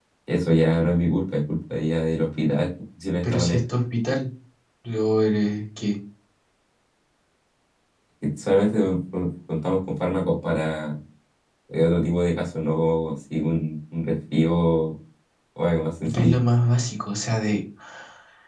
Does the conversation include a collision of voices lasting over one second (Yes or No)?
No